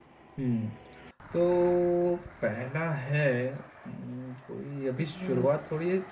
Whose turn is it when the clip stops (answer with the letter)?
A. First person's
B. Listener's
A